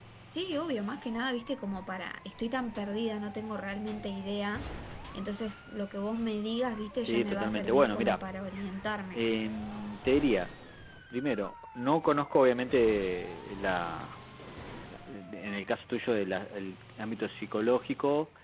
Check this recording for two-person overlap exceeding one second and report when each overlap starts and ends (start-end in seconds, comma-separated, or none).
7.0-8.2